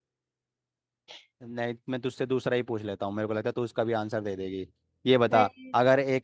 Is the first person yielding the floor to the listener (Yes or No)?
No